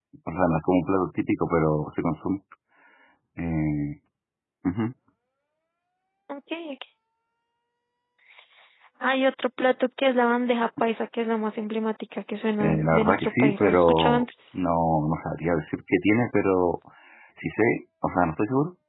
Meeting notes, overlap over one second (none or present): present